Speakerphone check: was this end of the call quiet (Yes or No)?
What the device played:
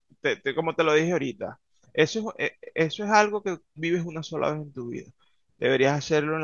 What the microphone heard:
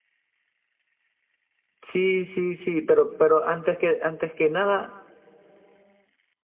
No